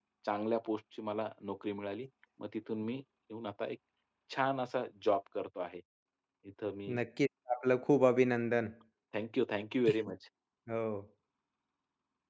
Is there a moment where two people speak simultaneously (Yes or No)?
No